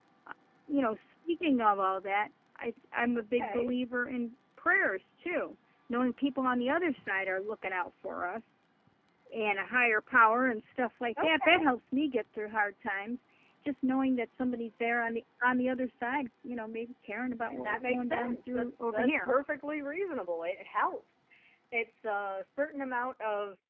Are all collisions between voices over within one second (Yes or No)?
No